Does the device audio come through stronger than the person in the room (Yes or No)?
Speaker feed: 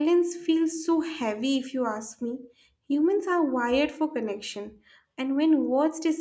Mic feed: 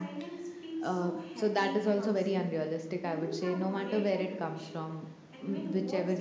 No